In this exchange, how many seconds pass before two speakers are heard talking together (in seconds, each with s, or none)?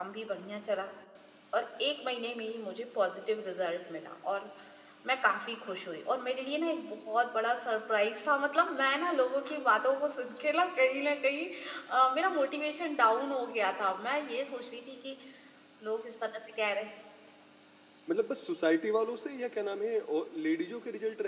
none